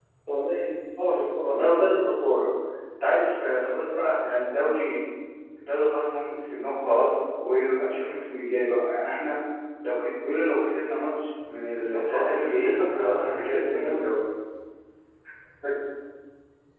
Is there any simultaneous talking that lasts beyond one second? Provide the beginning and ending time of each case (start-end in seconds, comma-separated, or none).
11.7-14.1